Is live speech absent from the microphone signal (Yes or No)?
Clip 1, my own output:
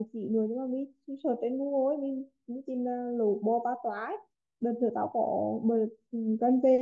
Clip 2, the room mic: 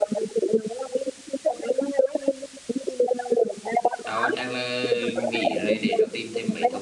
No